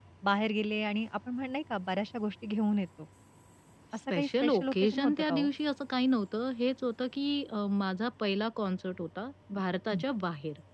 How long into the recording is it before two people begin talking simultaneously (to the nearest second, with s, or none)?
4 s